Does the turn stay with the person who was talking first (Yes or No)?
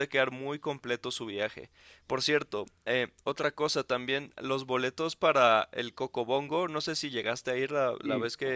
No